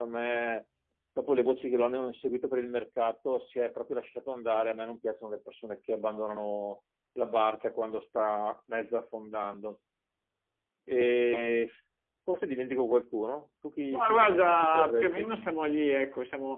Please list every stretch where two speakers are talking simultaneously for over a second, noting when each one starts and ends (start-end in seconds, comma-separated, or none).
13.9-15.3